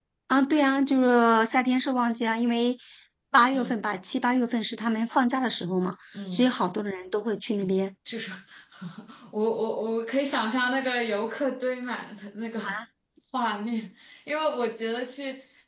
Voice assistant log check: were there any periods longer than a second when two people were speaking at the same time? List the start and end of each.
none

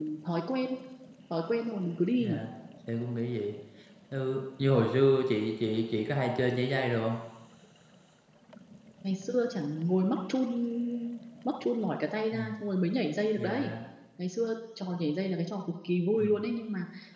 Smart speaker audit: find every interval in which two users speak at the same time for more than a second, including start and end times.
none

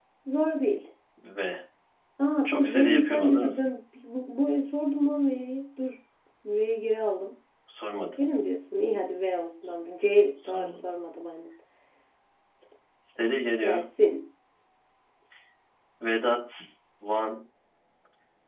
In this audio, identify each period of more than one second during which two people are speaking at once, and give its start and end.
2.4-3.7

